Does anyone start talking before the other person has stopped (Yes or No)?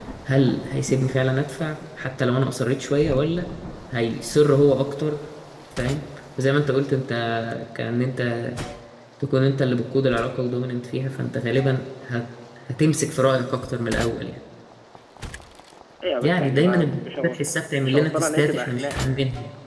Yes